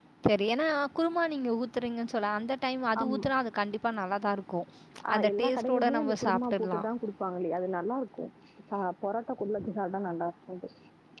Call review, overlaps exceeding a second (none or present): present